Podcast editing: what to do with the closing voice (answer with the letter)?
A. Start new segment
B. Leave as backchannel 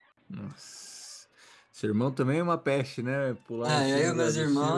A